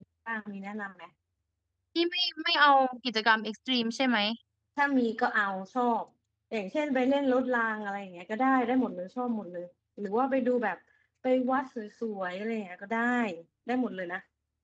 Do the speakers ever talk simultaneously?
No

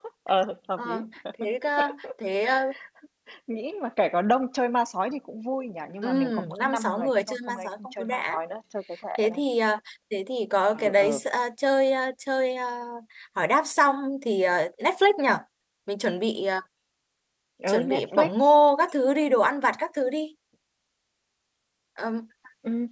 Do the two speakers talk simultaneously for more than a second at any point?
Yes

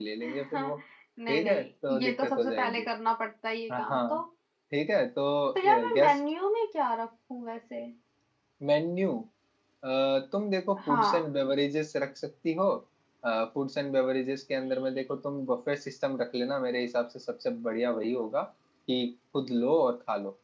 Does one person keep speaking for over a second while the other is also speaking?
Yes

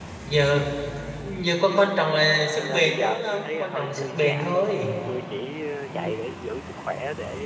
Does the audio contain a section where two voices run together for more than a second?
Yes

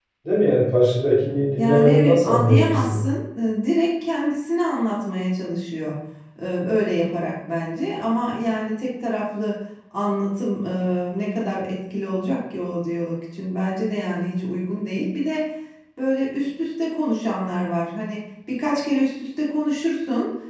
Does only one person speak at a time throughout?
No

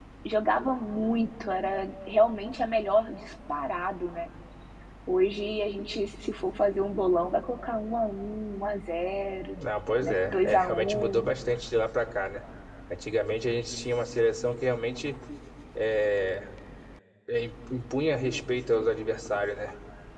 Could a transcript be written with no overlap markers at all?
No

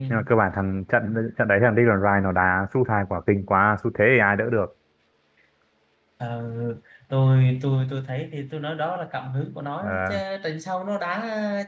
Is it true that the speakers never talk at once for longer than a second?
Yes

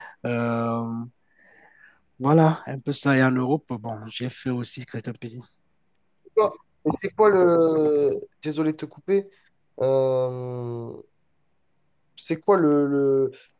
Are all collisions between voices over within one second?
Yes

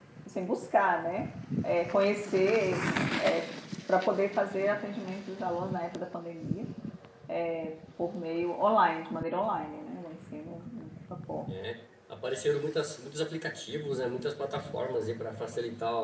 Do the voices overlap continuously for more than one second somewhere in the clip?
No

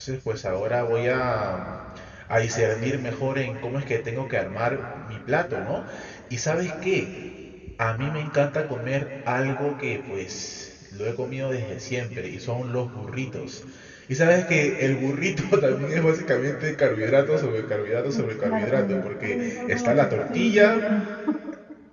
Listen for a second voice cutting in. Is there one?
Yes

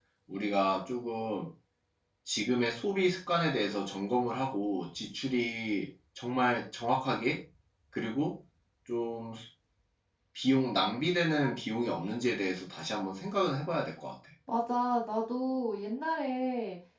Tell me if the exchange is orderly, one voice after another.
Yes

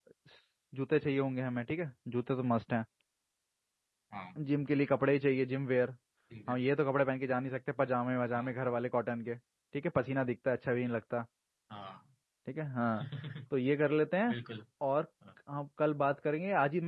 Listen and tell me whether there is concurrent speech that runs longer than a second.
No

